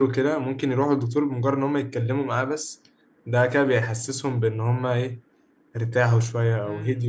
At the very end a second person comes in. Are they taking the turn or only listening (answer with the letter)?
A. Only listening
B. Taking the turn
B